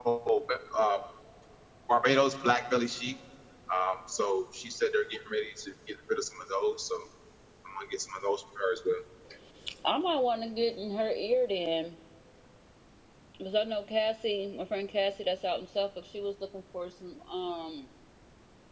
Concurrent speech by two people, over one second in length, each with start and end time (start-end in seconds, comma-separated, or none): none